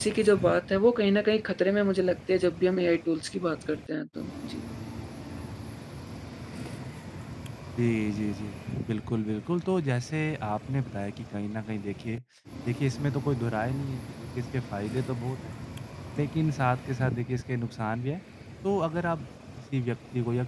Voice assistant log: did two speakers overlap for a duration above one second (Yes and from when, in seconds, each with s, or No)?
No